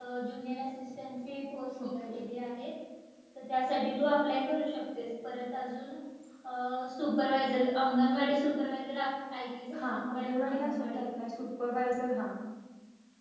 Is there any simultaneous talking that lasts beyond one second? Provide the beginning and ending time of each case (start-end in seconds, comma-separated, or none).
9.7-11.0